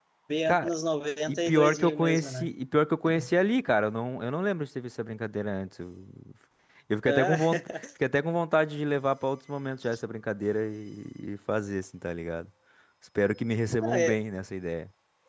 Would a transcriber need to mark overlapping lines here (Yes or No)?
Yes